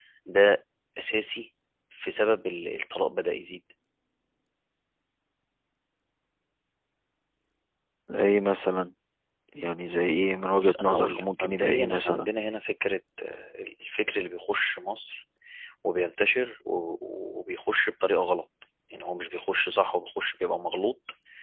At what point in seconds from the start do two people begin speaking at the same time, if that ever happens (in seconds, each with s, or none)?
10.5 s